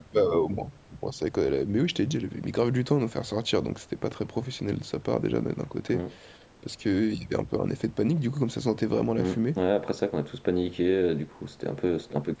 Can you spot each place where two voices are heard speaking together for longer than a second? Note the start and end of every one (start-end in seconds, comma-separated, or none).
none